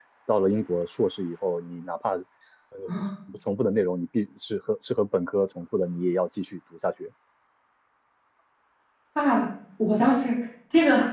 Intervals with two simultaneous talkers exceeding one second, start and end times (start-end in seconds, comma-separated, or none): none